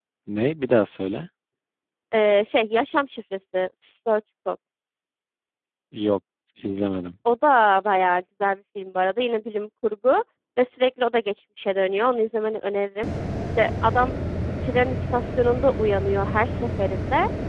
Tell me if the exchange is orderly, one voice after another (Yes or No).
Yes